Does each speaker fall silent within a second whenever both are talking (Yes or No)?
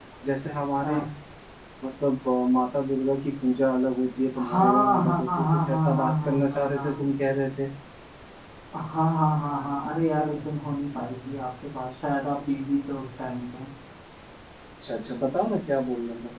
No